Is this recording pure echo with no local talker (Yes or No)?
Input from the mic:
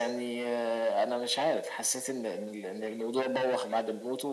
Yes